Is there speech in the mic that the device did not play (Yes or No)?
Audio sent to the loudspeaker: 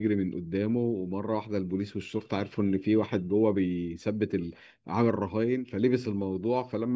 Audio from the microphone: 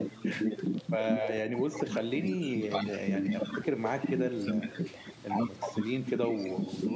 Yes